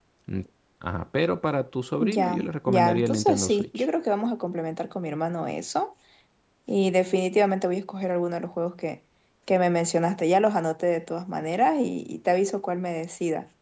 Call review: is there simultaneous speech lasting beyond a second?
Yes, from 2.0 s

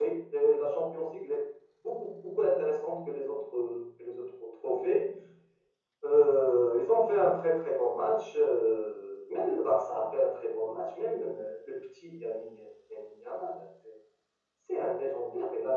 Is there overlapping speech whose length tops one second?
No

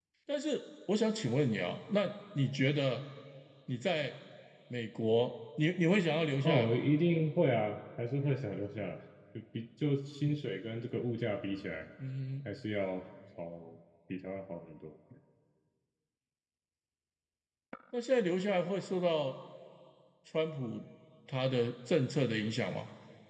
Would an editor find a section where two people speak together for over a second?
No

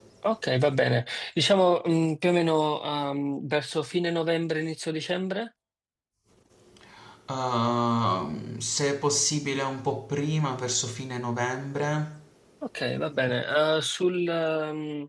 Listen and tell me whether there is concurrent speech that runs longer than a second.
No

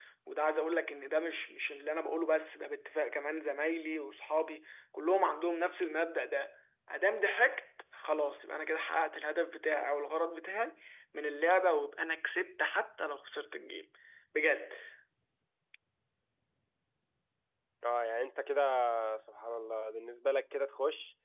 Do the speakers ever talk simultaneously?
No

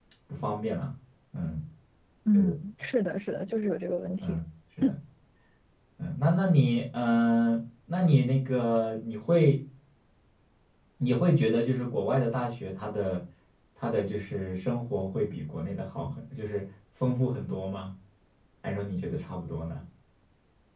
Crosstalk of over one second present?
No

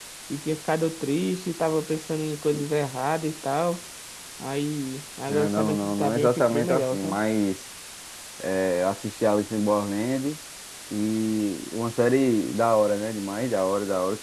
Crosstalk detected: Yes, from 5.3 s

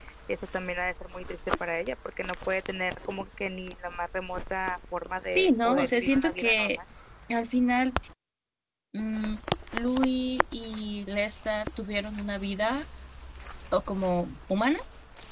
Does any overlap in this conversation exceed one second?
Yes, from 5.3 s

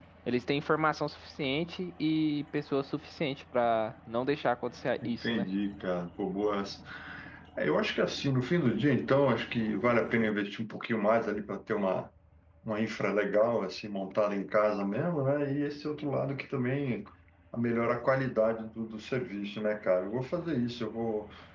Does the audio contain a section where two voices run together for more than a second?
No

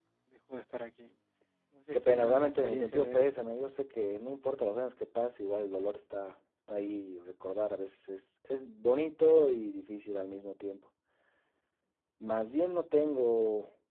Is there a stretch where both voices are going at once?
Yes, from 1.9 s

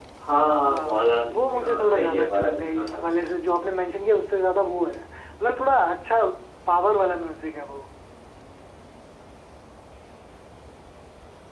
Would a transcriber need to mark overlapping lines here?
Yes, from 0.6 s

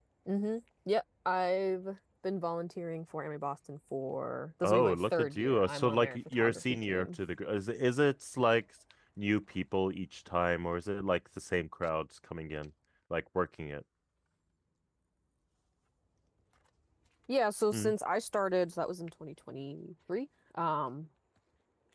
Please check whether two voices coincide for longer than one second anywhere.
Yes, from 4.6 s

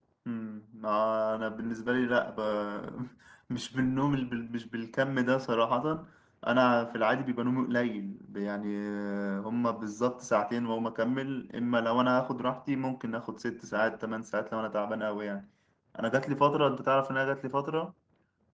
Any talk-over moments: No

